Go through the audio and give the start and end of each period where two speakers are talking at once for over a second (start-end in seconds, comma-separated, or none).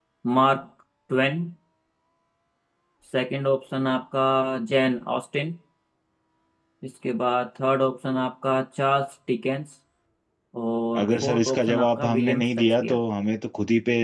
11.0-13.0